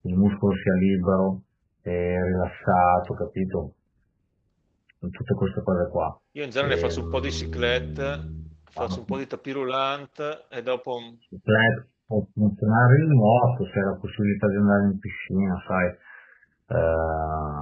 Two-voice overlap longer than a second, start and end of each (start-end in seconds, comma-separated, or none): 6.6-8.2